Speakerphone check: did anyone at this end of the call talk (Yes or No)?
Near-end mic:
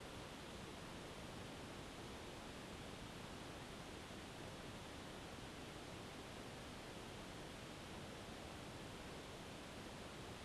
No